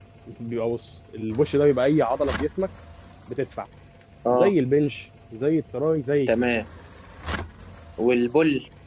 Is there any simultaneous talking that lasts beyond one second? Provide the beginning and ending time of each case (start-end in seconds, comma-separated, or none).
none